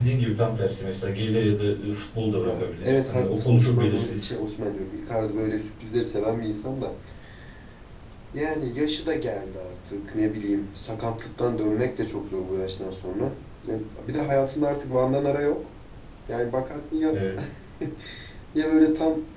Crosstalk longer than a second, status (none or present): present